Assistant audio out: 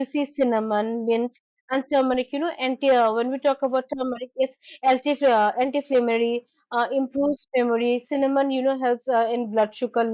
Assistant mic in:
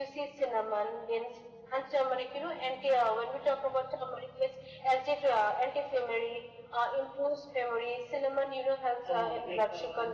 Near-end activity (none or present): present